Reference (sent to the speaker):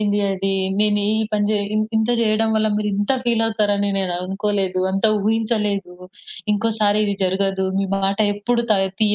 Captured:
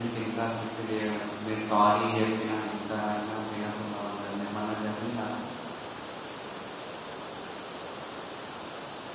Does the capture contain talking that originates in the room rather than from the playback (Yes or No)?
Yes